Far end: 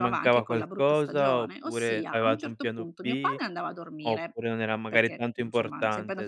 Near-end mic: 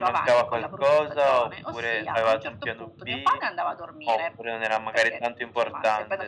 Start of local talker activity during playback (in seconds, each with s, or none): none